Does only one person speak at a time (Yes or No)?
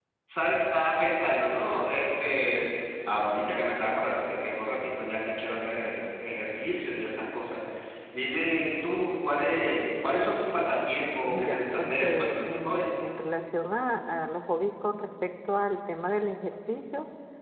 No